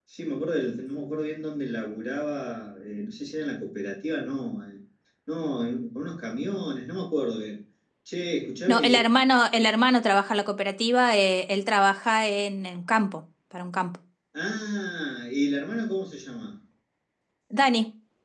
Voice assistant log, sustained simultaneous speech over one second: none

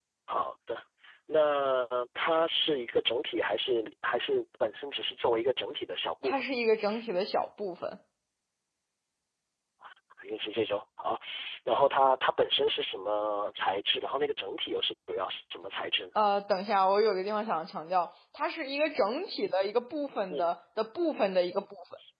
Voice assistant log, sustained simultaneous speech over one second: none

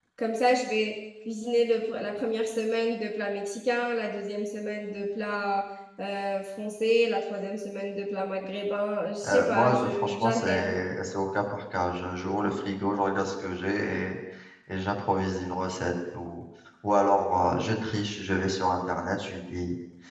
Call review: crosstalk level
present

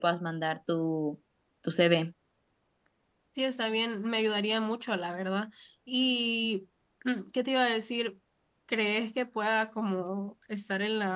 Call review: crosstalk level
none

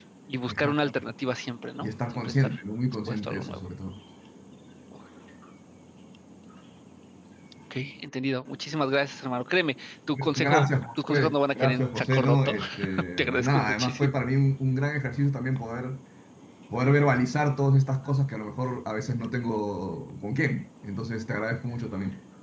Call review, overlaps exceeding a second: present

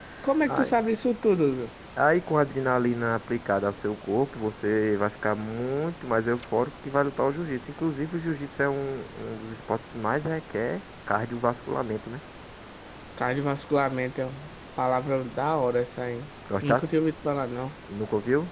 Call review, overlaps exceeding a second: none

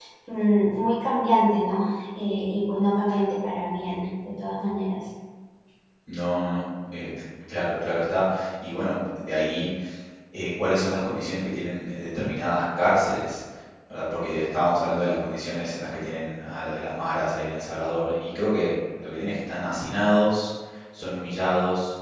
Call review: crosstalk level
none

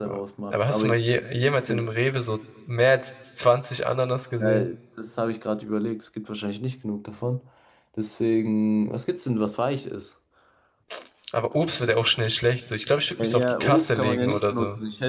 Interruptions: present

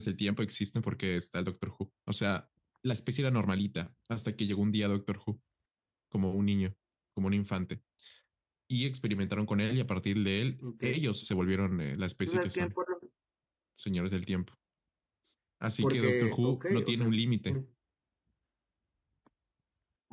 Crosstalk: present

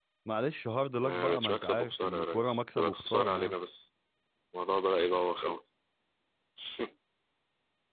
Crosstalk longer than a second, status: present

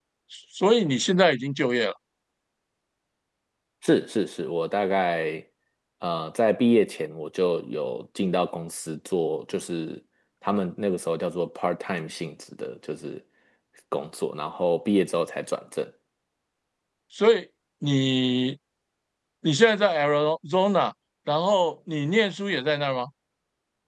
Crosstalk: none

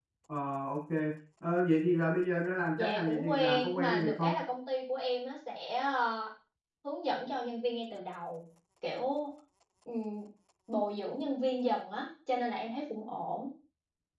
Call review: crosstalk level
present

